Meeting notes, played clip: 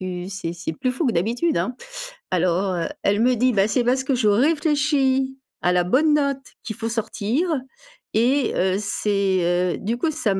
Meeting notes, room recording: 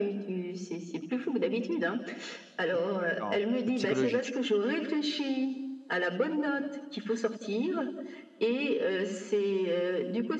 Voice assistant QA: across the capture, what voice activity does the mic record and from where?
both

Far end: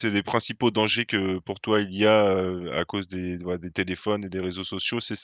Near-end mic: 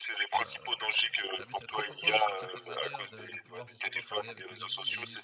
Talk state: both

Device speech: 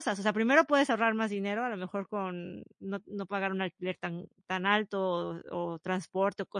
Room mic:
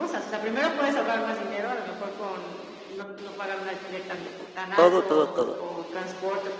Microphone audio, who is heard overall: both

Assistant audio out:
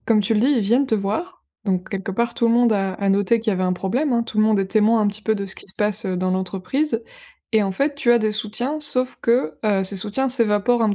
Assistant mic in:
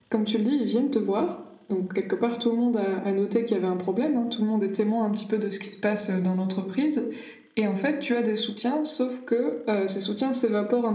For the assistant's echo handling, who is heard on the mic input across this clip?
echo only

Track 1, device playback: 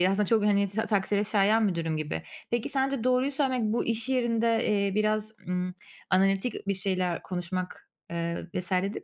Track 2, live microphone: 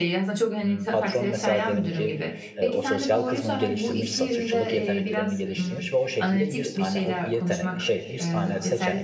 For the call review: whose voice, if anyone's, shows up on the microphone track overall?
both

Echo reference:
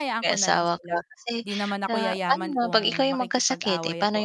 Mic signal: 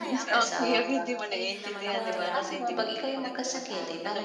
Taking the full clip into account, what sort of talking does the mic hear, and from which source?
both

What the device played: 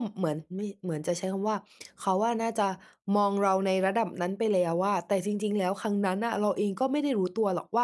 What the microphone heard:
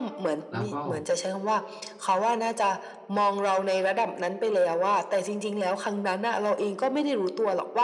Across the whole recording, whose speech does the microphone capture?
both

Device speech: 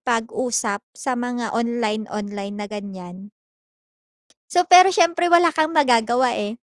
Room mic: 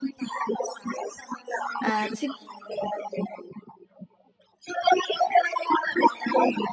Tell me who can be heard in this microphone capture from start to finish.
both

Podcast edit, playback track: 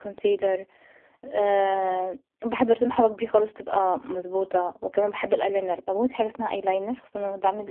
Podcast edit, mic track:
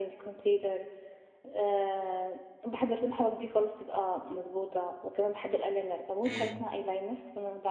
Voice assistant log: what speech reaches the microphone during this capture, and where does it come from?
both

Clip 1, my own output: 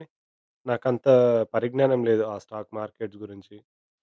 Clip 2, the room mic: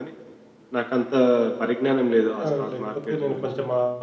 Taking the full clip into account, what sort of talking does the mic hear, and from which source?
both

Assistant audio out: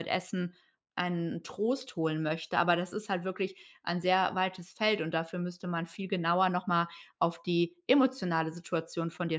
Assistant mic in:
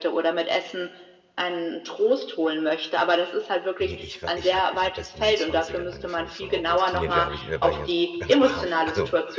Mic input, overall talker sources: both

